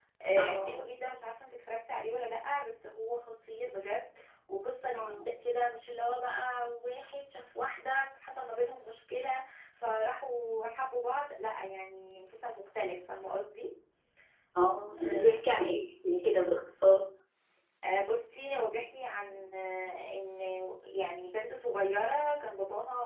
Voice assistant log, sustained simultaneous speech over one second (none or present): none